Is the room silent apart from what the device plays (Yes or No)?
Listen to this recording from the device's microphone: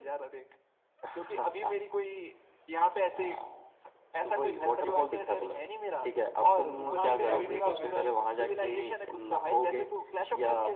No